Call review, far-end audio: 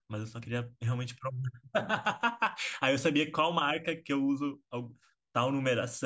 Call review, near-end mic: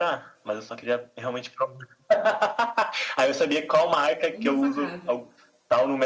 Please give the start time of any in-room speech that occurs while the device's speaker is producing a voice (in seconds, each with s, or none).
4.3 s